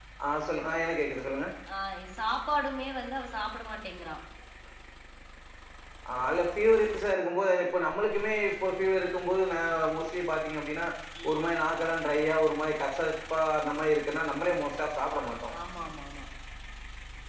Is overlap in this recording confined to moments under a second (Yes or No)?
Yes